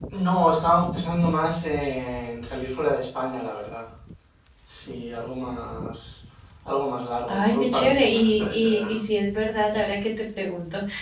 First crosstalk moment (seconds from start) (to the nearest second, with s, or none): 7 s